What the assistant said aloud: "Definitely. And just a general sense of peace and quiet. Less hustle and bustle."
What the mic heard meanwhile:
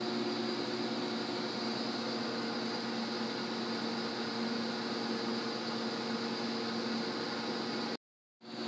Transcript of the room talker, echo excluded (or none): none